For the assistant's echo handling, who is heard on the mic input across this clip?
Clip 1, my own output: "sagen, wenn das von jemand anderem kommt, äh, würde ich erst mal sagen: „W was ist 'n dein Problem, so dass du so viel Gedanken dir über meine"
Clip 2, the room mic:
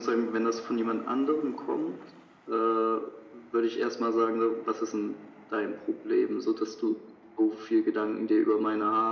echo only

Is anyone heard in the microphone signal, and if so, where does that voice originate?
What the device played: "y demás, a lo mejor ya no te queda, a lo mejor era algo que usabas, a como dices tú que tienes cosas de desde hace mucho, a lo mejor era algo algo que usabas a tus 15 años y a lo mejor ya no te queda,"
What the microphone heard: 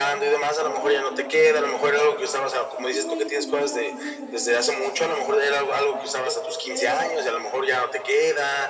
both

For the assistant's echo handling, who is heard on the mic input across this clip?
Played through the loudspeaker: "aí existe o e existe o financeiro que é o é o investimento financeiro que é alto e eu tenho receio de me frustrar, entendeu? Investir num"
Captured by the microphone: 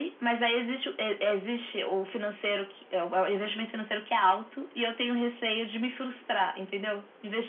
echo only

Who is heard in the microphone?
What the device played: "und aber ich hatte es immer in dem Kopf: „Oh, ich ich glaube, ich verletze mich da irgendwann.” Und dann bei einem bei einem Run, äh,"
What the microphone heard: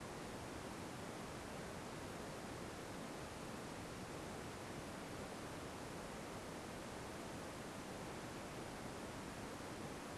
neither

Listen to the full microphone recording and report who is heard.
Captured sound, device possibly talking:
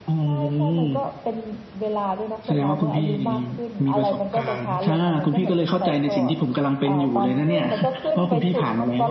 echo only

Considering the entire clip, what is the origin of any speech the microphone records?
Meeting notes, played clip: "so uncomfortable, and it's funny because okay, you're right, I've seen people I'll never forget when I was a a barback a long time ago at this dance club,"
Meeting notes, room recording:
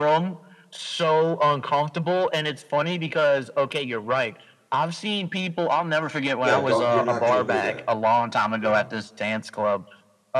both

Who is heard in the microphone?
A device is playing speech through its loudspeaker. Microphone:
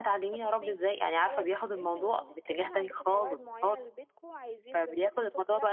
both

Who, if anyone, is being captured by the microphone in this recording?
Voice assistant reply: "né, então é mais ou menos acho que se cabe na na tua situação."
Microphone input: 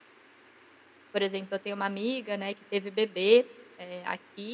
user only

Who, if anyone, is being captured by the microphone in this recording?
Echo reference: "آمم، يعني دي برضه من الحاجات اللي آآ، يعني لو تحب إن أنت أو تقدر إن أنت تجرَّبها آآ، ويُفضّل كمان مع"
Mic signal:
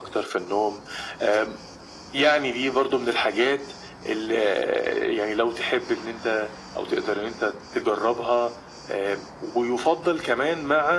echo only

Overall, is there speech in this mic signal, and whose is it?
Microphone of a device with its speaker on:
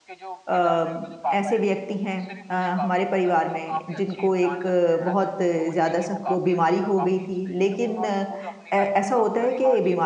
both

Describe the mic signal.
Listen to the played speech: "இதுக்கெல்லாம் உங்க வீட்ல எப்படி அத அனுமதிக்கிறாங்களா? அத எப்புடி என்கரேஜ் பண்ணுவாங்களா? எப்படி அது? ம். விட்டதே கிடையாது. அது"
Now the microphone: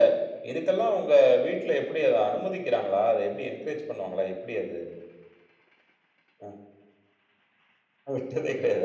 echo only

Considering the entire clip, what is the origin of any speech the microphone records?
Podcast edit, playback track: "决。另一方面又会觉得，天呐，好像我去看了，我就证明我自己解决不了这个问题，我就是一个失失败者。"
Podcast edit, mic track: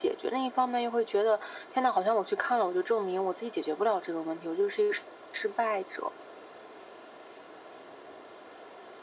echo only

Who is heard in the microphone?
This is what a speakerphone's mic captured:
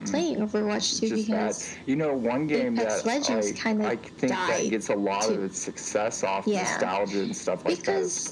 echo only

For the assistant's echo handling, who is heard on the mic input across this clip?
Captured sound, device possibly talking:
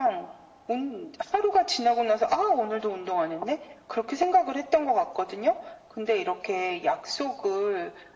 echo only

